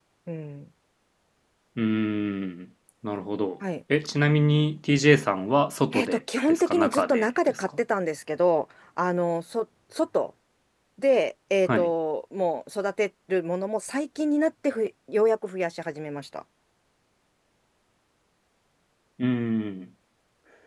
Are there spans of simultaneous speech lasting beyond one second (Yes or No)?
Yes